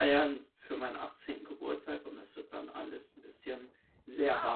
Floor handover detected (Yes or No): Yes